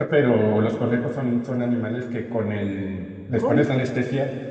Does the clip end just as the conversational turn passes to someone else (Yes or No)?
No